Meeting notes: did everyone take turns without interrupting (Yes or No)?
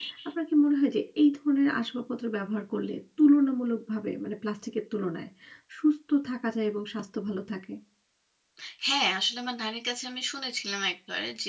Yes